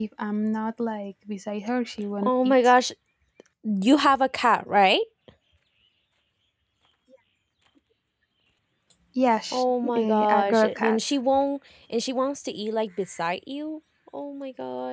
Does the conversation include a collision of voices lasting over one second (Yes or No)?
Yes